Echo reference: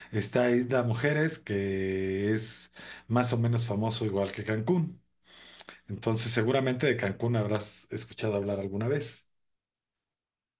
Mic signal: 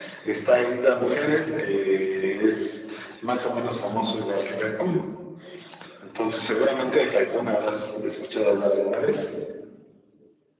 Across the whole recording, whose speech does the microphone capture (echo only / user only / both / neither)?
echo only